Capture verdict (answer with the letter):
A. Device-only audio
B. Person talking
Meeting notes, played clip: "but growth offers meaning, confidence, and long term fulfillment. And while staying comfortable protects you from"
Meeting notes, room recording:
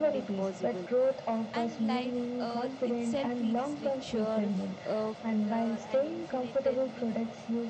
B